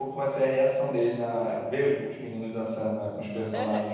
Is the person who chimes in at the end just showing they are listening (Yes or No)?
No